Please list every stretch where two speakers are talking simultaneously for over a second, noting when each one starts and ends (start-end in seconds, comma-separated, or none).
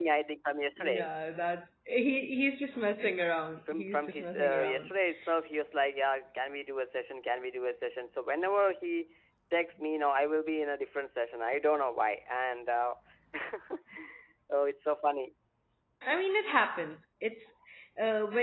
3.7-4.9